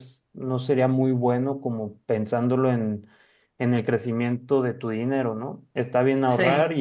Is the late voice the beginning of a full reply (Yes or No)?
No